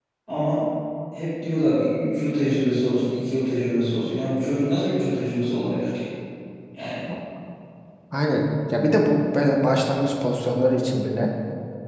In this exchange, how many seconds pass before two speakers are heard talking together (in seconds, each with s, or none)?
none